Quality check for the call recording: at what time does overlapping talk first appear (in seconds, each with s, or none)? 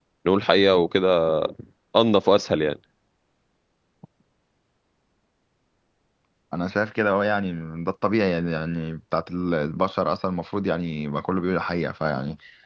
none